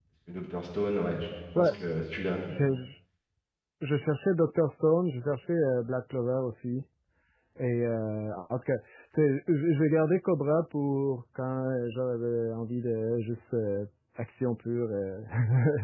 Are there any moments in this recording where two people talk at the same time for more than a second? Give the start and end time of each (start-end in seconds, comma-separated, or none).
none